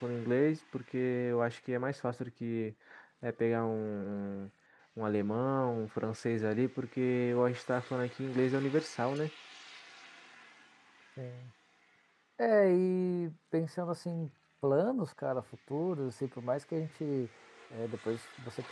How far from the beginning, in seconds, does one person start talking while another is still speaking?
none

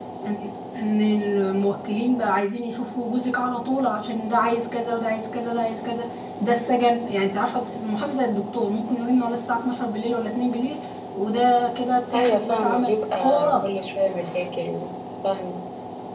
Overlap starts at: 12.1 s

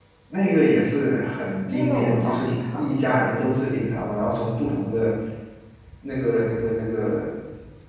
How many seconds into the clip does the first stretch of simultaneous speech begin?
1.7 s

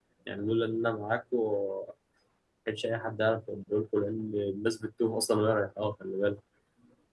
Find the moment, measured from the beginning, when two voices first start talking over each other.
none

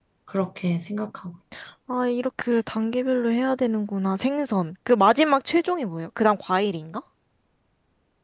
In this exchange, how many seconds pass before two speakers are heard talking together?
none

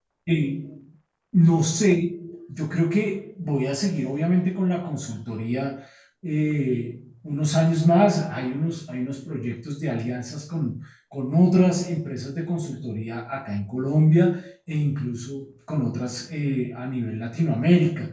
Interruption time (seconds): none

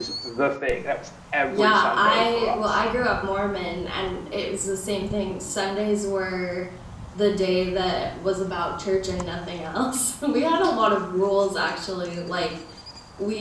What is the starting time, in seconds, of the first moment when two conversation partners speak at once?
1.5 s

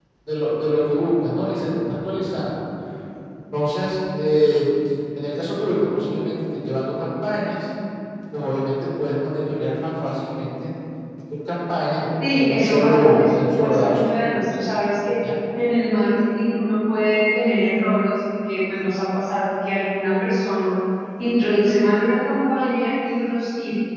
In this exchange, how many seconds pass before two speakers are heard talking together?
12.2 s

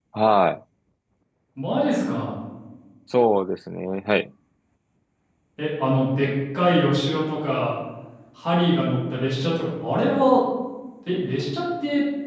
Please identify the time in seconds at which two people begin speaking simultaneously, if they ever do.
none

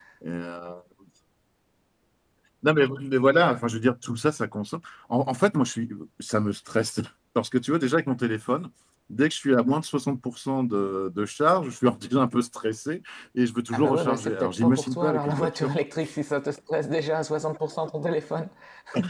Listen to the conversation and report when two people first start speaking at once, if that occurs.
13.7 s

